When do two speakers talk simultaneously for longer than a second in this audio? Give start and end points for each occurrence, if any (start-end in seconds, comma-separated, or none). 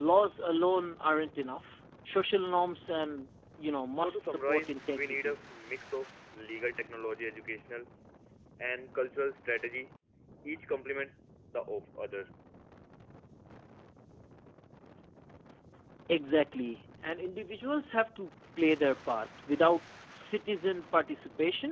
4.0-5.4